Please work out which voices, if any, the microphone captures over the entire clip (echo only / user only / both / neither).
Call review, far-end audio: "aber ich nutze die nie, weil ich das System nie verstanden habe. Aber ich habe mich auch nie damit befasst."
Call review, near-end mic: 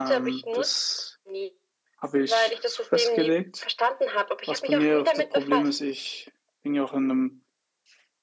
both